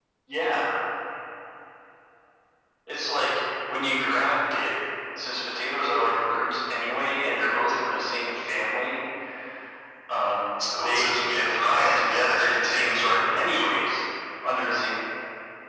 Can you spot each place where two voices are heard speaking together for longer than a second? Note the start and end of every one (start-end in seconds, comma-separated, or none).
10.8-13.7